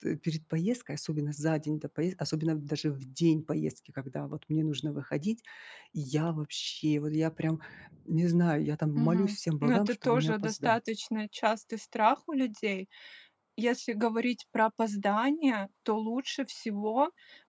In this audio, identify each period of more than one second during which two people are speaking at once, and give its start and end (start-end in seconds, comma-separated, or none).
9.0-10.8